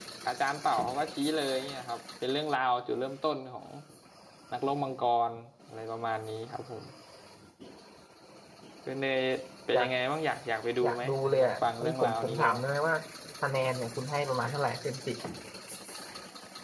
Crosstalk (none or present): present